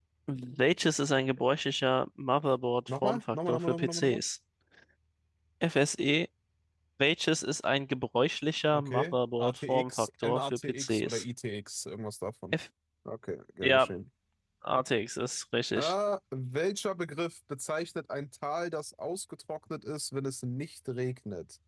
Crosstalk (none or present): present